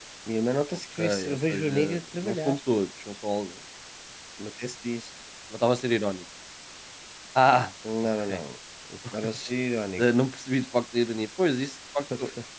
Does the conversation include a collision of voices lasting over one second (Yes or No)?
Yes